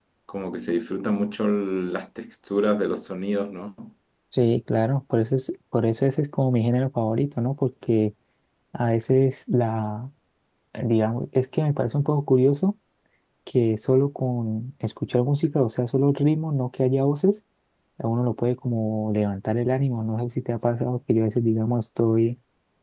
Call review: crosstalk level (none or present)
none